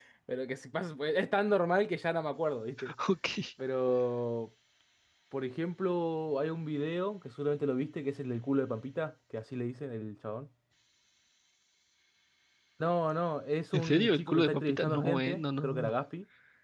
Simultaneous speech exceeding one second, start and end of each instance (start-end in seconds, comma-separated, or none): 13.7-15.9